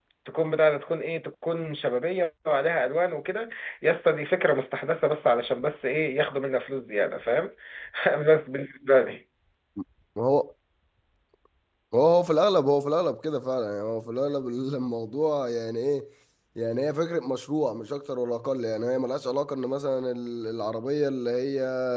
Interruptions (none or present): none